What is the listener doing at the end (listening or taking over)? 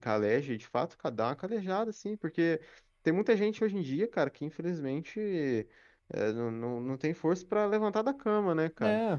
listening